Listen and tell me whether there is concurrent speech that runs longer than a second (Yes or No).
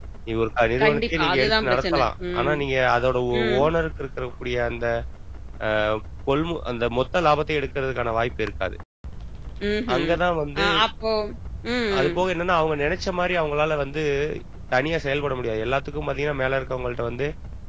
Yes